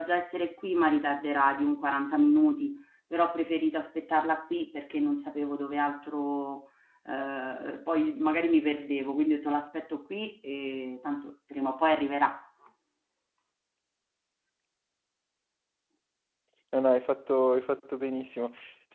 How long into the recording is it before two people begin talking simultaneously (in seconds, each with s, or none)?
none